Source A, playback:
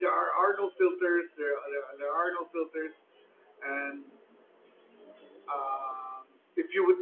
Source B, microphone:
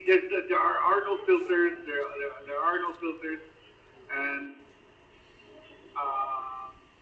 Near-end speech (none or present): none